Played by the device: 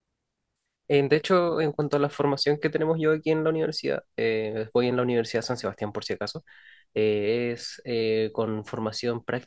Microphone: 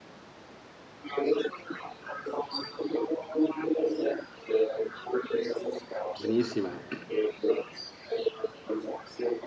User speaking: Yes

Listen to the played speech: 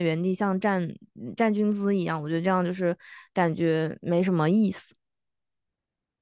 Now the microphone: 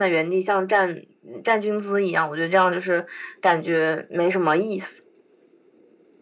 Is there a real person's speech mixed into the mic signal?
No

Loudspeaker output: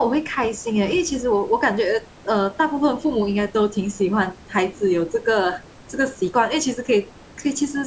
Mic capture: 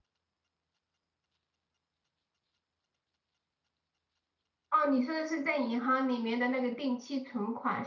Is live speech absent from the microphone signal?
No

